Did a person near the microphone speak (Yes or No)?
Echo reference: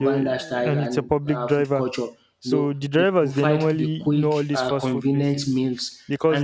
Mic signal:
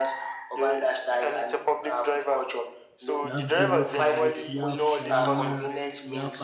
Yes